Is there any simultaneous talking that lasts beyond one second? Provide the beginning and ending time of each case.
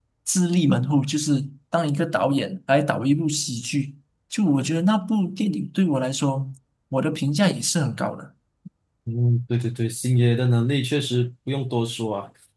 none

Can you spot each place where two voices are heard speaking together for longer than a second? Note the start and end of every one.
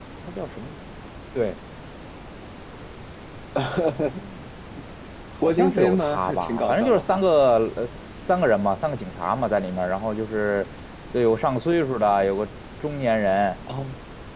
5.4-7.2

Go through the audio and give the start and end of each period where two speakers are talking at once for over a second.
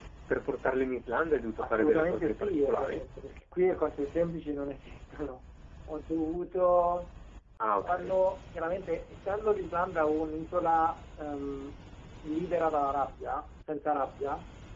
1.6-3.0

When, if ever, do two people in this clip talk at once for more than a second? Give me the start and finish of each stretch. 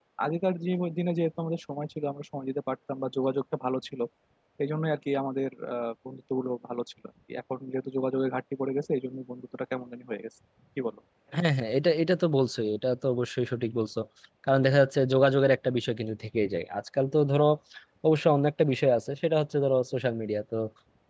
none

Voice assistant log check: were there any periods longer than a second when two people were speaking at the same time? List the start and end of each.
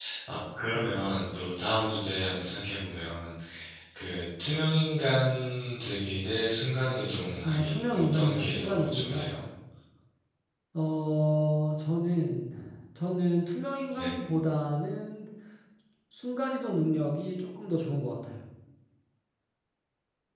7.4-9.3

